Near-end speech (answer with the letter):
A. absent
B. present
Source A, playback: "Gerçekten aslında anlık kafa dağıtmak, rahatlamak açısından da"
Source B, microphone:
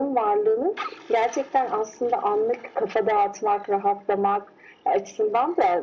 A